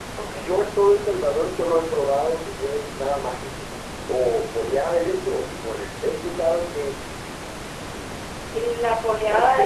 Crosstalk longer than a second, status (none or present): none